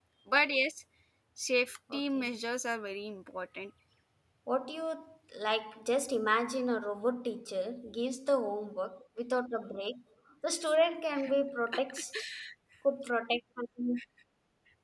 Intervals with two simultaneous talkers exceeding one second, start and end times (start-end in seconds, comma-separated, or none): none